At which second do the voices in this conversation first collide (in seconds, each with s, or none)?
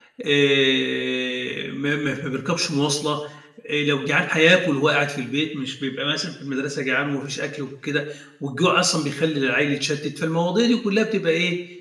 none